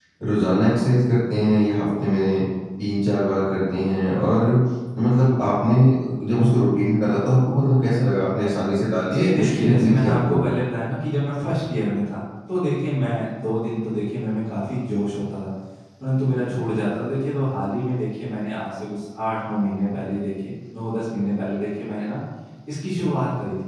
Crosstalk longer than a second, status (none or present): present